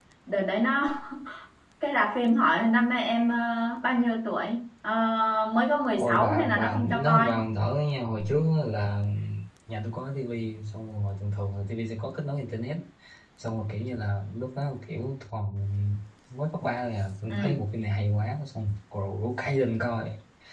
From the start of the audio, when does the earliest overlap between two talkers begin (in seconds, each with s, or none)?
6.0 s